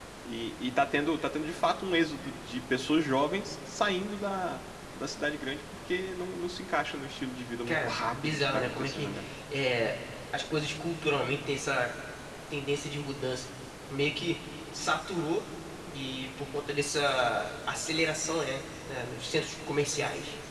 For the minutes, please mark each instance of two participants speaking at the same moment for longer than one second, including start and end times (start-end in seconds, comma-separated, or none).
7.7-9.1